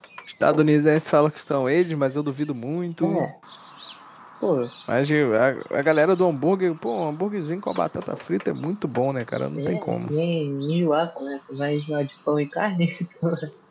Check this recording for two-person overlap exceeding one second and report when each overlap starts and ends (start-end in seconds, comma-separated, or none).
none